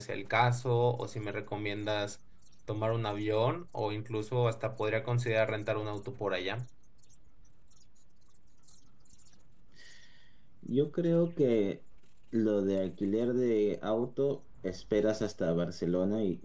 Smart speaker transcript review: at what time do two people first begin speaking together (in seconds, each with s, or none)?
none